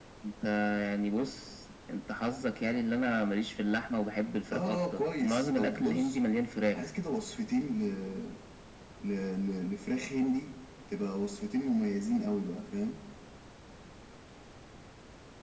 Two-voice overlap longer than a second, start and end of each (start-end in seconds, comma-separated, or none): 4.5-6.2